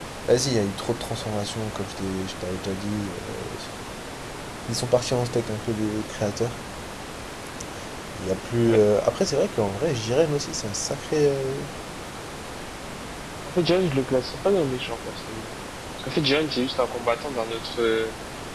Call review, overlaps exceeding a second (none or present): none